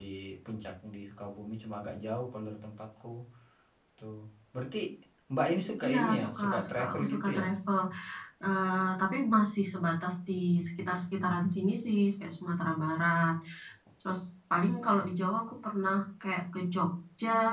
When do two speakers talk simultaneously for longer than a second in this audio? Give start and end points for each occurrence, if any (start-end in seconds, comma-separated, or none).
5.8-7.4